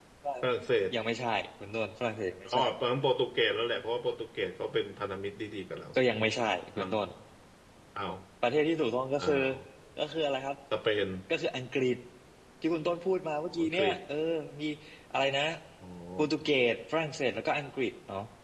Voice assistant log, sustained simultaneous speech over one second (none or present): none